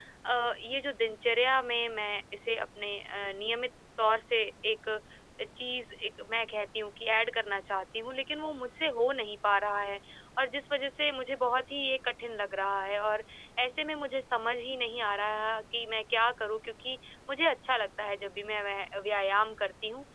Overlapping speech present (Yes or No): No